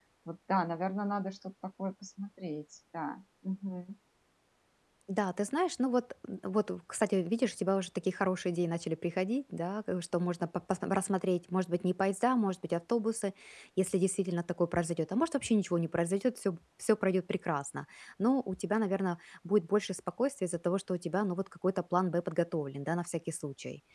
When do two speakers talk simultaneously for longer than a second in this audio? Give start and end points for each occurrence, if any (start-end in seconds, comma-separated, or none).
none